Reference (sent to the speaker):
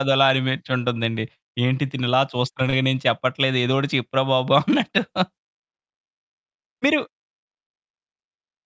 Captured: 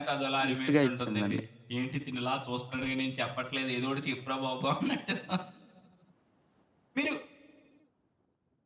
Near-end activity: present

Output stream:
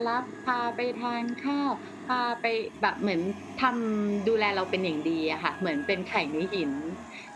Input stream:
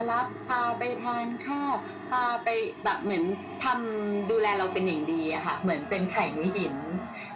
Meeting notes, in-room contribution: none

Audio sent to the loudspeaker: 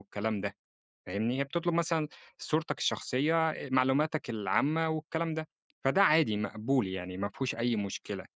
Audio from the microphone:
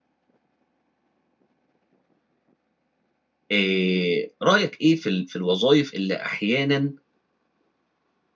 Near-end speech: present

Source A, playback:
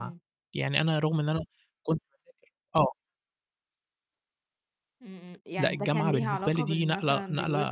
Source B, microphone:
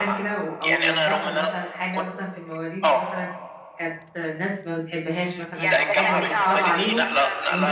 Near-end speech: present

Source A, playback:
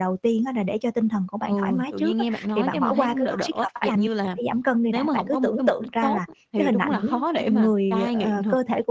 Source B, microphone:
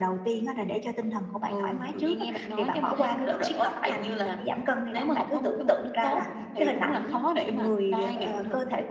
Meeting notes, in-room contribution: none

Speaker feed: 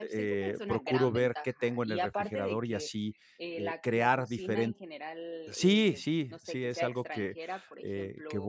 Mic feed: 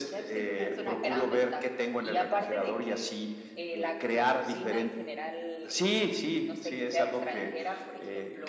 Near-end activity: none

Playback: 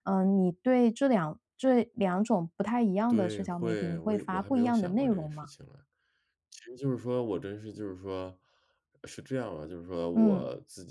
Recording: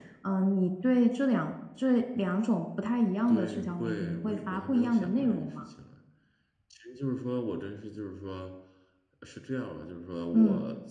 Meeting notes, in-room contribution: none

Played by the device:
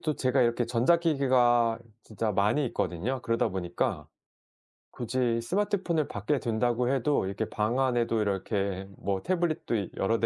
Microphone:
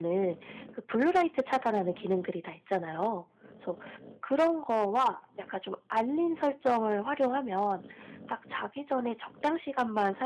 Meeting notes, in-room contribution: present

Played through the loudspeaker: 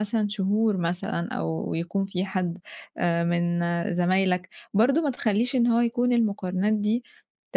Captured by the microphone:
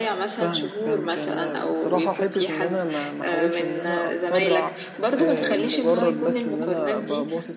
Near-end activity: present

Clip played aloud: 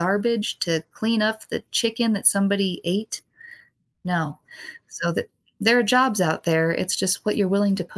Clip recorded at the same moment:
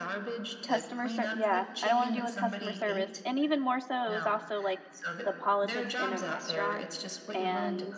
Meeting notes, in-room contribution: present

